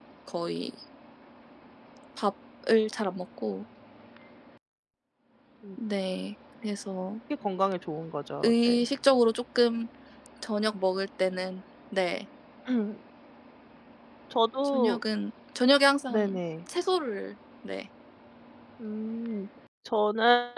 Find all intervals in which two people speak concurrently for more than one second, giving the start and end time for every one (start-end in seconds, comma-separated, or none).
none